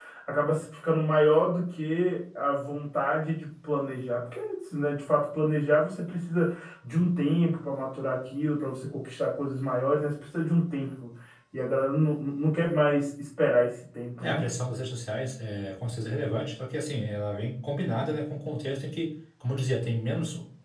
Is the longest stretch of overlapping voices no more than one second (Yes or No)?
Yes